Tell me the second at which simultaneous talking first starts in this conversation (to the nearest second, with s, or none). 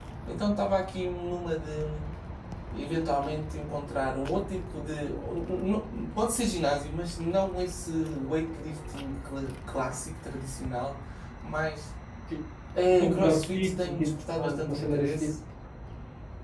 13 s